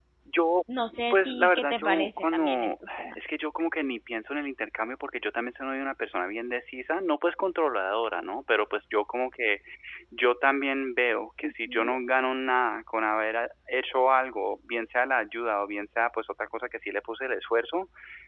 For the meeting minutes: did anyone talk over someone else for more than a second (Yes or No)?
Yes